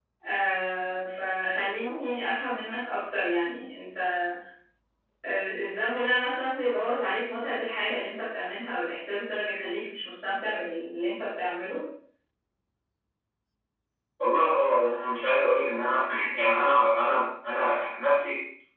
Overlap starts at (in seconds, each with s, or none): none